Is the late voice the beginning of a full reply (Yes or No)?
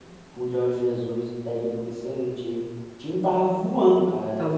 No